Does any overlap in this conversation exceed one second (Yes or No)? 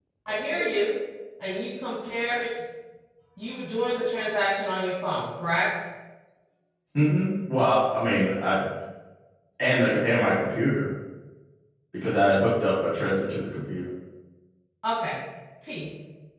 No